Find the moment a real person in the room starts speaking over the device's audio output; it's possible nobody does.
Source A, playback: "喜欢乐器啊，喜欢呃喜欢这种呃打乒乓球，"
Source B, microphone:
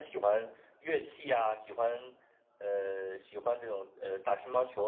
none

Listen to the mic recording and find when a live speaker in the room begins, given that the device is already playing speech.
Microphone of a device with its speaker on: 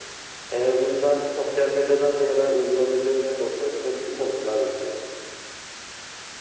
none

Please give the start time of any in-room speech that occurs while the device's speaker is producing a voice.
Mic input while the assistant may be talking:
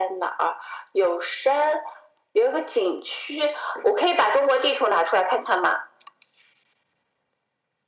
none

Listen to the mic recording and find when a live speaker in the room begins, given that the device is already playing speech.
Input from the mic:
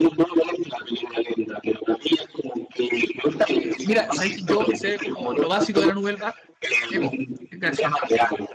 3.4 s

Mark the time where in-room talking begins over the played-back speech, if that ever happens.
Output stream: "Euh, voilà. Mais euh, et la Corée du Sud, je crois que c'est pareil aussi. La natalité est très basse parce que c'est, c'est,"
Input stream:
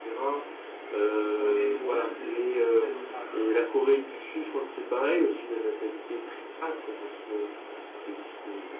1.2 s

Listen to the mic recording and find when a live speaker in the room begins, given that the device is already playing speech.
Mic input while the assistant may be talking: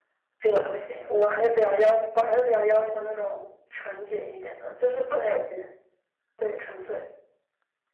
0.4 s

